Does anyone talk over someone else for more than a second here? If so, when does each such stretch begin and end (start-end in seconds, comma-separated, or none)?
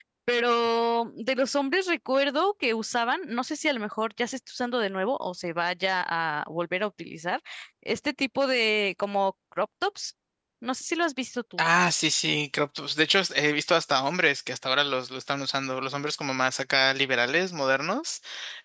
none